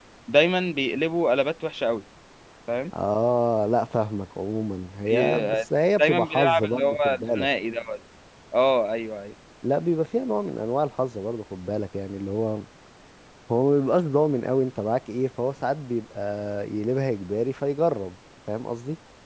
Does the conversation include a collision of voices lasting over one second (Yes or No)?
Yes